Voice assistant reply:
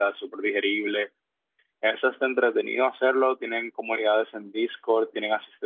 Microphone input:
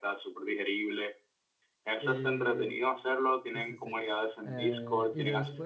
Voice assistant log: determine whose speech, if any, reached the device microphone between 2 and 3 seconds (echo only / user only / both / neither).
both